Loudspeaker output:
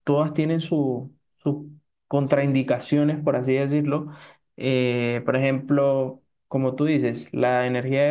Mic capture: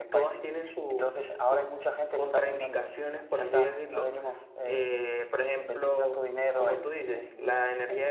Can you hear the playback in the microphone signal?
Yes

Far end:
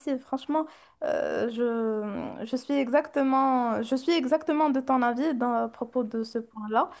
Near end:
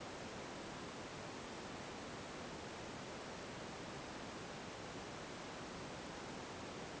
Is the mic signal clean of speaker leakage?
Yes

